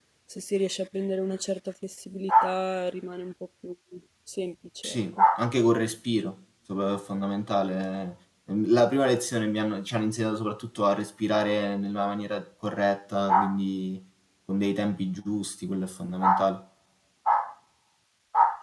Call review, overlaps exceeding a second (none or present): none